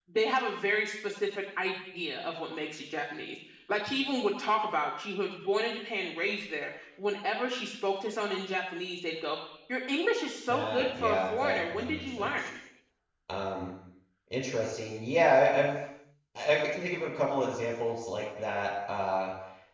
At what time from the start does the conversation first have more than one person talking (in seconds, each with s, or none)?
10.5 s